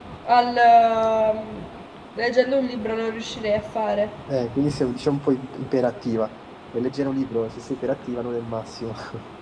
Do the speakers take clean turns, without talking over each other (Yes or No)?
Yes